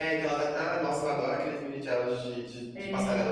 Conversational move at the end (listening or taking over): taking over